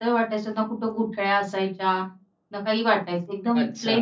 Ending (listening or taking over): listening